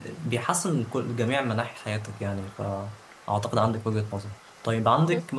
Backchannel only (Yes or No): Yes